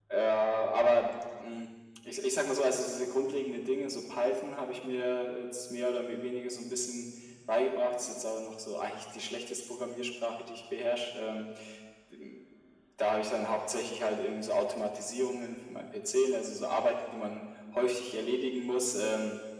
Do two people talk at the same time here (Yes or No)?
No